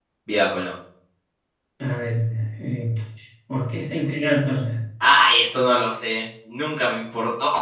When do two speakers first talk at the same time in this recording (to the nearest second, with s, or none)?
none